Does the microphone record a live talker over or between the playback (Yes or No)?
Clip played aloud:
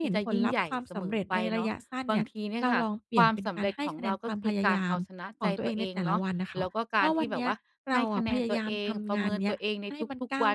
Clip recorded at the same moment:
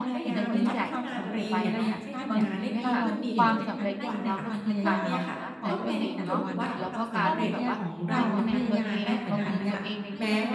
Yes